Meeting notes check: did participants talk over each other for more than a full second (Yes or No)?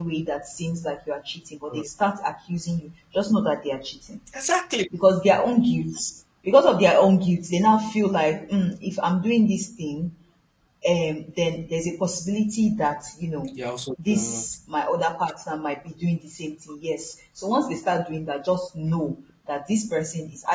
No